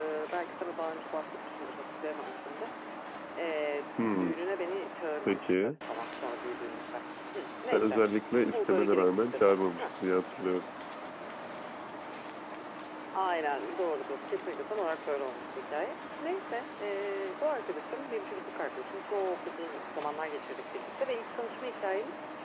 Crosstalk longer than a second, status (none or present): present